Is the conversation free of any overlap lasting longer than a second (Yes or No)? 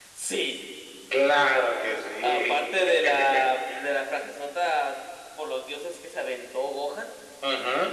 Yes